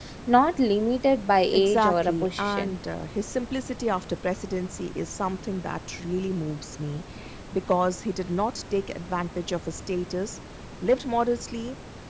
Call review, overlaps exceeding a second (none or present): present